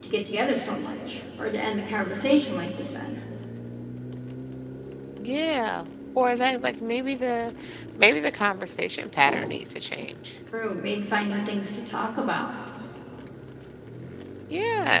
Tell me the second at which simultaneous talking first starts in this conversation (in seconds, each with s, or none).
none